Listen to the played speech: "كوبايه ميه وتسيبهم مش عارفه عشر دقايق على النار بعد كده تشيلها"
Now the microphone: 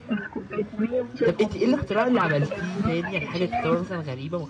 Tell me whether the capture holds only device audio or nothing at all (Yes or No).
No